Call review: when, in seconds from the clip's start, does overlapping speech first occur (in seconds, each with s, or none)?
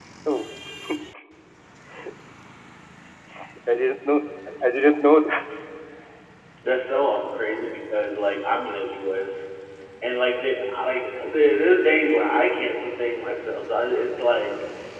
none